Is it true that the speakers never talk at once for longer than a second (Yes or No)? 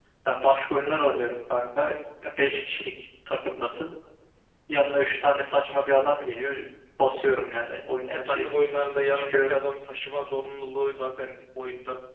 Yes